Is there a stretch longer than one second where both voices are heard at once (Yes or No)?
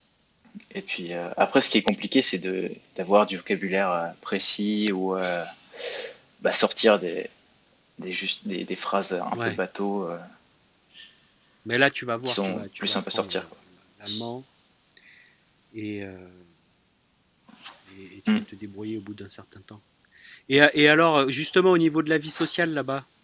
Yes